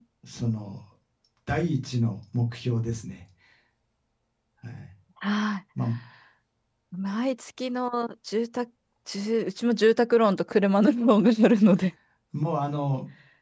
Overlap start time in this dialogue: none

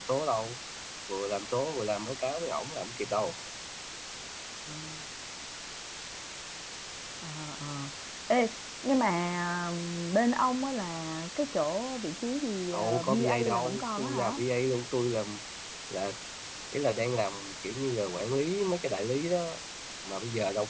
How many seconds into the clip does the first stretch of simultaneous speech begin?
12.7 s

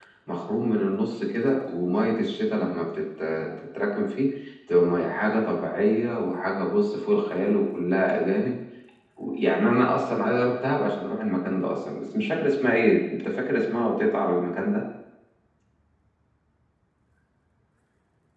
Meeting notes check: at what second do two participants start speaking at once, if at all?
none

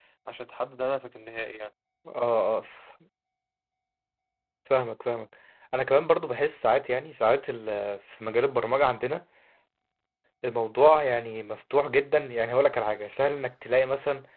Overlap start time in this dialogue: none

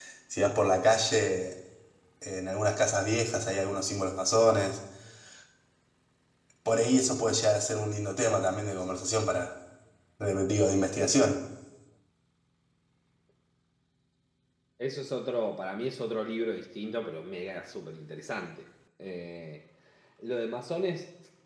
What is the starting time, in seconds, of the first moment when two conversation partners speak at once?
none

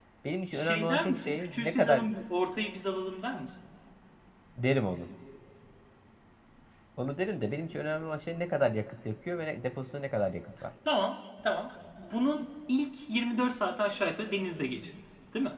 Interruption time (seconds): 0.5 s

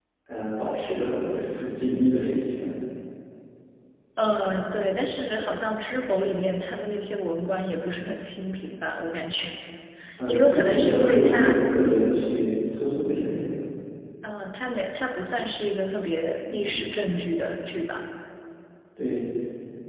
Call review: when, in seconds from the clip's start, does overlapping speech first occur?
10.3 s

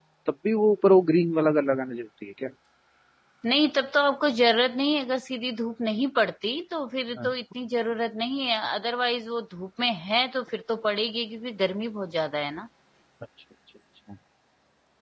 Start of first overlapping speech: none

